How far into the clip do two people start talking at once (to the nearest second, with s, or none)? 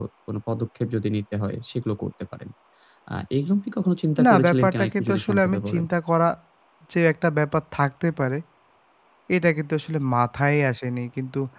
4 s